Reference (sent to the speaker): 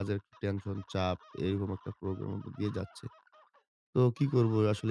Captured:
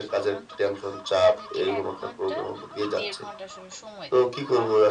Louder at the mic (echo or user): echo